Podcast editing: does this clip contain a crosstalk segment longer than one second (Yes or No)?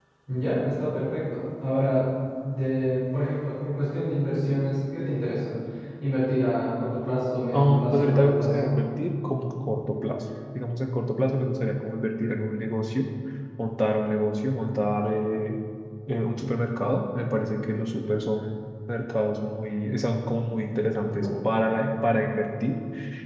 Yes